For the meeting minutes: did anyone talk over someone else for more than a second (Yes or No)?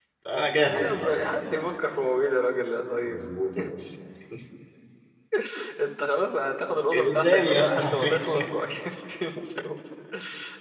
Yes